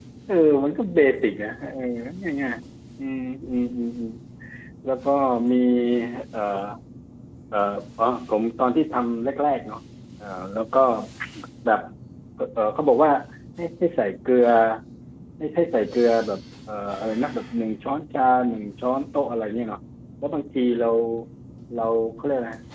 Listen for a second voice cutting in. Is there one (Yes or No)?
No